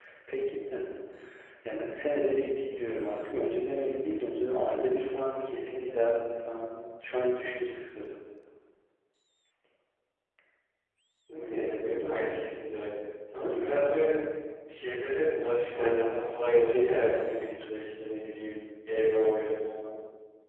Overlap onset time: 16 s

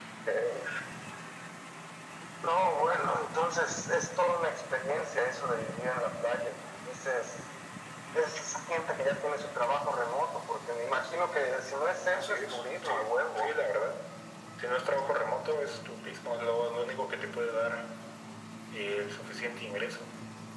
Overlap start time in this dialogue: 12 s

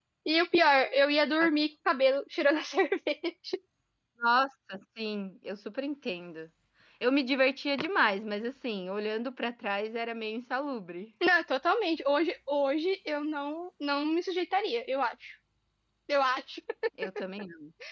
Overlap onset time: none

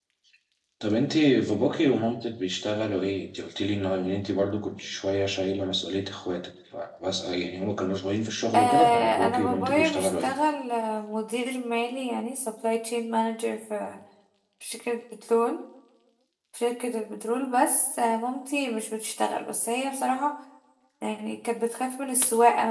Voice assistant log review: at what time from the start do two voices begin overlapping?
9 s

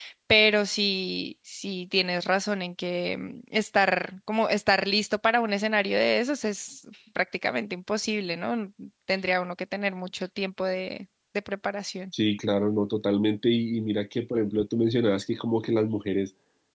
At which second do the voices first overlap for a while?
none

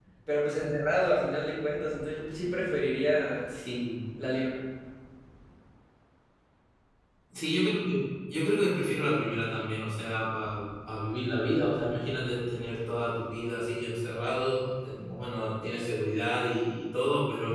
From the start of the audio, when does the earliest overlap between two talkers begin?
none

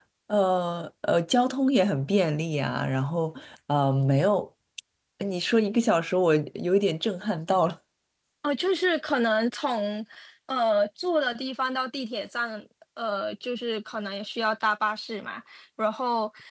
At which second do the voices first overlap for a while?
none

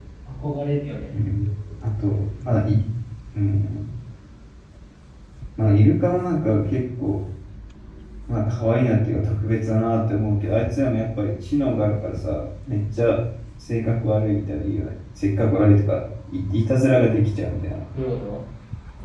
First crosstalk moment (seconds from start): none

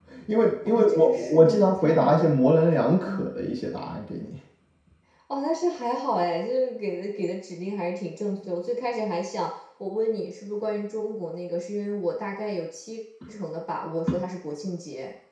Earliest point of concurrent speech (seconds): 1 s

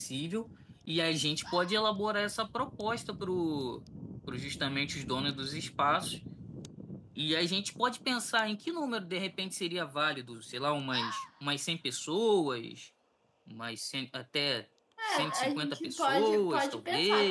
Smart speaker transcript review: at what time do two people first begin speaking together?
15 s

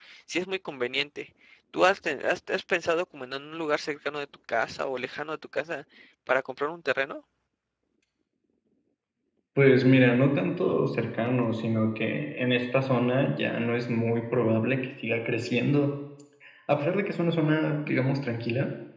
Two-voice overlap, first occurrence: none

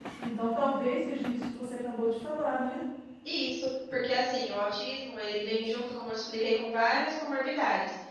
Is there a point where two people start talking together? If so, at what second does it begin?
none

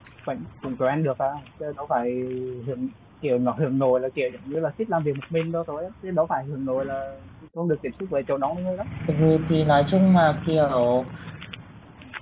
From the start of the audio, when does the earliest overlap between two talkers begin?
none

